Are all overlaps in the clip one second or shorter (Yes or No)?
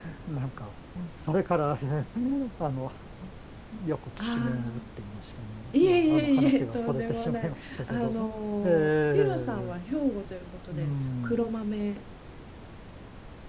No